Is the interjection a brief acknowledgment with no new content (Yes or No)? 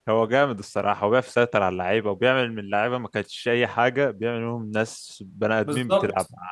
No